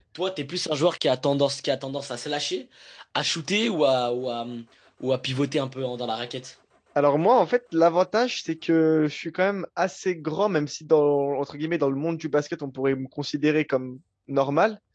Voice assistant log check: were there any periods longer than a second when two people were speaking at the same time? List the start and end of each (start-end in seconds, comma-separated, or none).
none